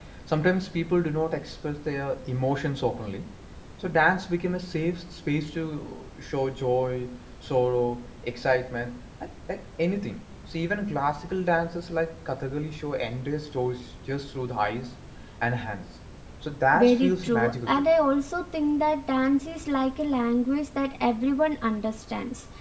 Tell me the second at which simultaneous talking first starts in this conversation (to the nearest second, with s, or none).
17 s